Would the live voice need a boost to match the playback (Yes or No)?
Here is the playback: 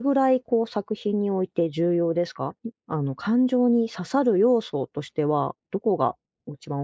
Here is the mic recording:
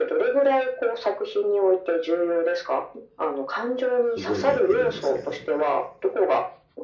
Yes